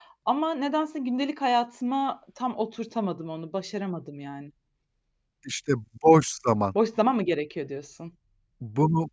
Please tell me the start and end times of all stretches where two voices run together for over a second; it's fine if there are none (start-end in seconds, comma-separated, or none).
none